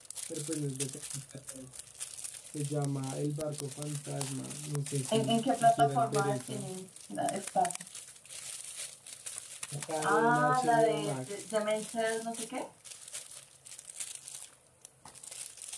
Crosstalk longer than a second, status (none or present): present